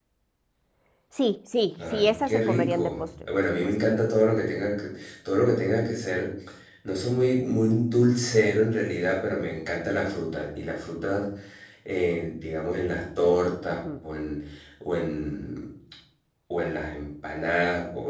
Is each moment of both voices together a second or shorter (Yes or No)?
No